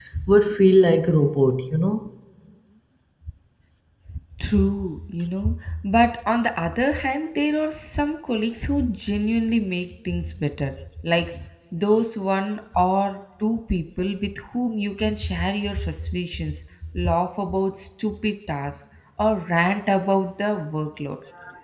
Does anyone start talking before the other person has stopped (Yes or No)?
No